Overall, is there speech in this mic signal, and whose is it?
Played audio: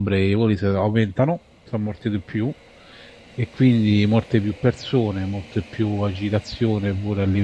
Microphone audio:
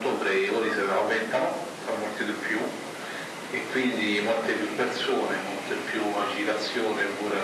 echo only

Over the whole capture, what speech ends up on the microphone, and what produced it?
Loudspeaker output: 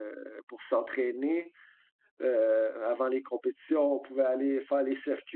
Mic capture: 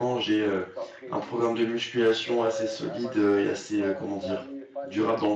both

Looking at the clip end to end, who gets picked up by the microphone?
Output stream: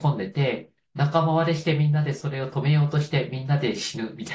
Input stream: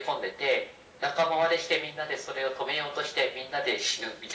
echo only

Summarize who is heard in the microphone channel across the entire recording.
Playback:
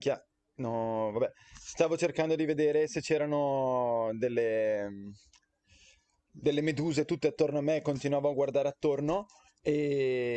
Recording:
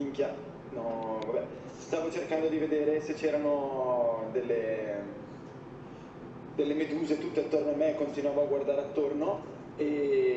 echo only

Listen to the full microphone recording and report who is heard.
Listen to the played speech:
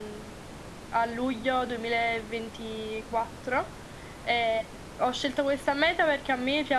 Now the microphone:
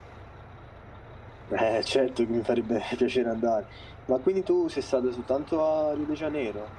user only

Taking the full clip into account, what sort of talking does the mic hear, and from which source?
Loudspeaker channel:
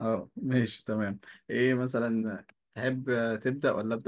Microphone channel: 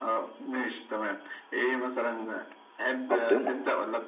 both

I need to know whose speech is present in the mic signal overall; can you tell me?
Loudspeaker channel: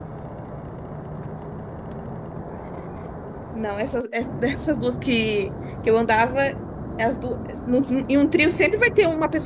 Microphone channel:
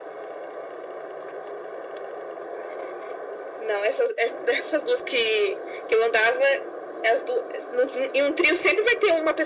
echo only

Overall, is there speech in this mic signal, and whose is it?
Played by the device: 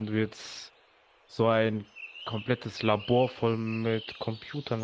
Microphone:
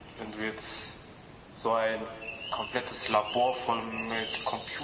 echo only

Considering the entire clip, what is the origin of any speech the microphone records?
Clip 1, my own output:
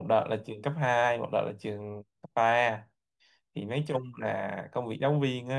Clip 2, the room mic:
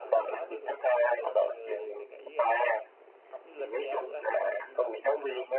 both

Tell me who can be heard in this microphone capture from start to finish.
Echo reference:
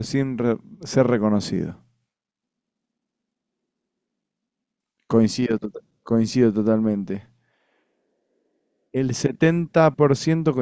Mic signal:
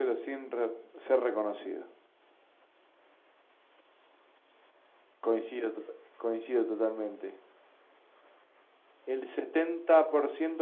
echo only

